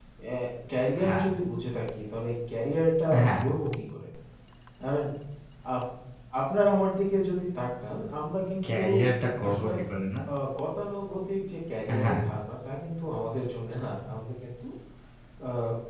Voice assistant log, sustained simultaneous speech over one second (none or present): none